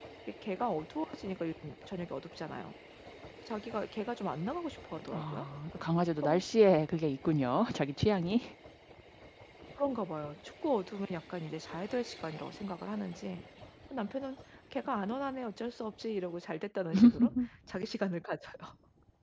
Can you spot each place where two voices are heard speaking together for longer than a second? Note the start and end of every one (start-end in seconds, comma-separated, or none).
none